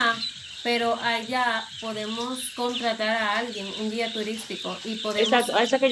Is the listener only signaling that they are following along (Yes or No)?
No